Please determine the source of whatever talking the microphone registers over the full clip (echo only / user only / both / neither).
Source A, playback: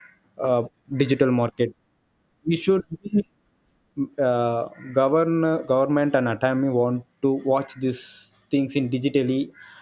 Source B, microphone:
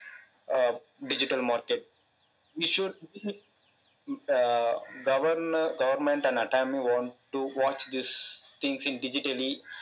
echo only